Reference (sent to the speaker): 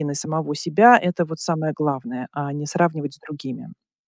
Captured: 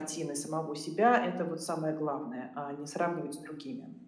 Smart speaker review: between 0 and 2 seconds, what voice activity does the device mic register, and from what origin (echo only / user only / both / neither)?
echo only